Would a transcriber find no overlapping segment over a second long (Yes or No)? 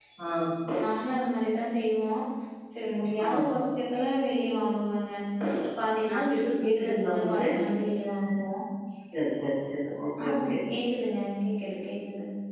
No